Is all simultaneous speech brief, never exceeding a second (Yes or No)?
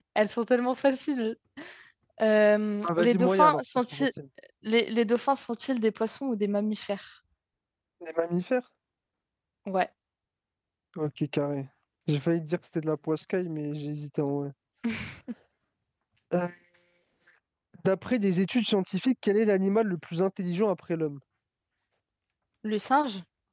No